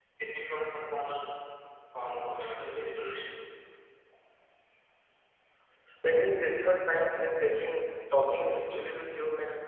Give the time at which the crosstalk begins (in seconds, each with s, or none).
none